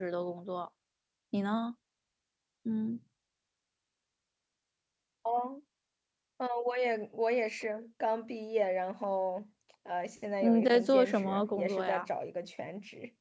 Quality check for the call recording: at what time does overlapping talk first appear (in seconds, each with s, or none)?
10.4 s